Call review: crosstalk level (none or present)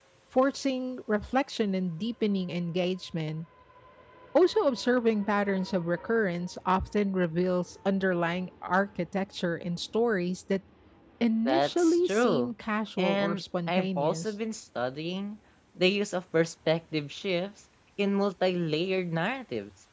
present